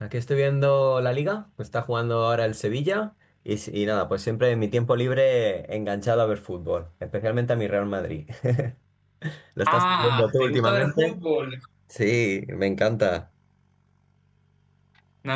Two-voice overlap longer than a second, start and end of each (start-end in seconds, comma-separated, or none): 9.7-11.2